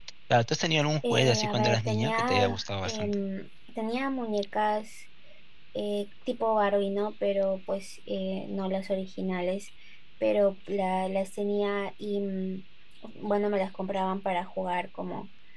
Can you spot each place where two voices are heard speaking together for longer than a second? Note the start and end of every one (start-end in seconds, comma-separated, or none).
1.1-3.1